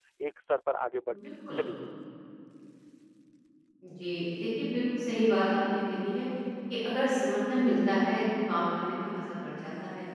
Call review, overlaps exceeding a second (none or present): none